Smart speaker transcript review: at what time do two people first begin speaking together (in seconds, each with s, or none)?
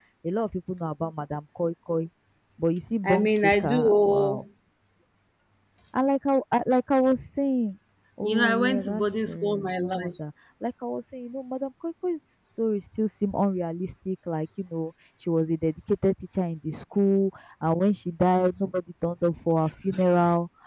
3.0 s